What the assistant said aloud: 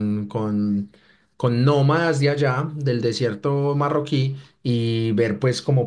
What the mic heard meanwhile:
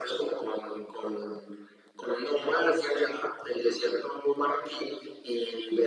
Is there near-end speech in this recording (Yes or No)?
No